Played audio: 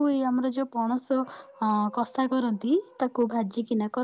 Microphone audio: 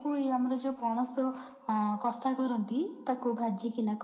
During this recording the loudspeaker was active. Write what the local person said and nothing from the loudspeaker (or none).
none